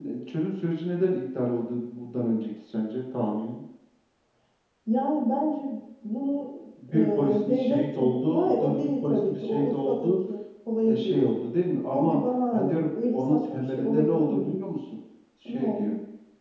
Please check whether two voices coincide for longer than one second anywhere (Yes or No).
Yes